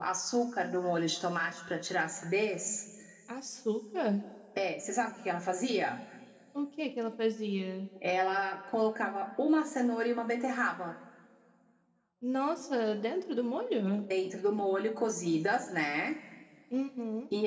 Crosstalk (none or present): none